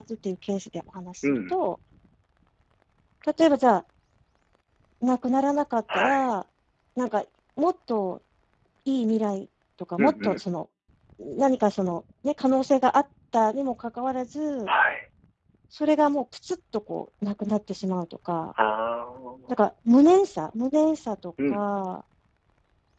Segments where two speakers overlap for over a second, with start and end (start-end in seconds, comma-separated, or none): none